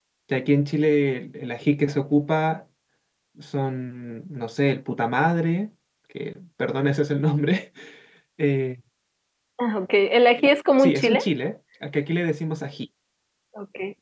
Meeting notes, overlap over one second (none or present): none